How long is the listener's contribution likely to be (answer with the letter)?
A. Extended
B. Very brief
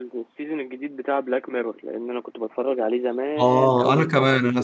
A